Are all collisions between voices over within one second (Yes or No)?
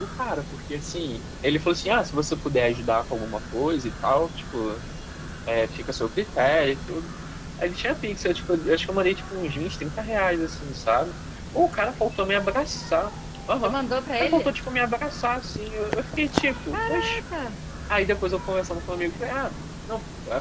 Yes